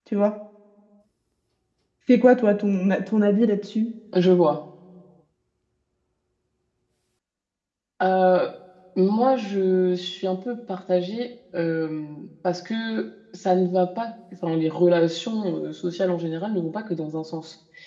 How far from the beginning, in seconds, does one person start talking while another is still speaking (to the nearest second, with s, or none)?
none